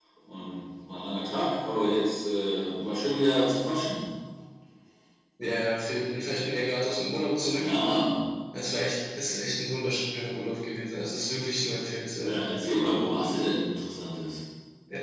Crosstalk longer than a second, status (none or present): none